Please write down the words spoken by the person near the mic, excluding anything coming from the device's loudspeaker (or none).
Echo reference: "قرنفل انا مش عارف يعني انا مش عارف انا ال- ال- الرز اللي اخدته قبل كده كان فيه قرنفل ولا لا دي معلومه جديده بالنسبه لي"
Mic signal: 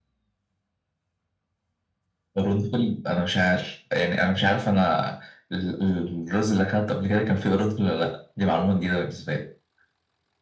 none